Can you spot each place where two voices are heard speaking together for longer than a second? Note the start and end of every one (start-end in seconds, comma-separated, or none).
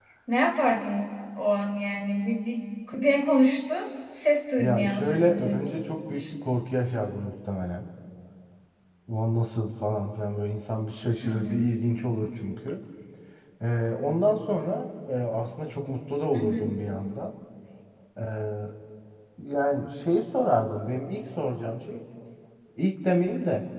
4.6-5.9